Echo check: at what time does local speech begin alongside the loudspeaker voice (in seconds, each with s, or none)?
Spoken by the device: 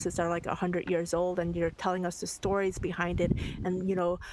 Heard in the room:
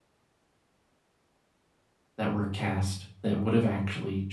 2.2 s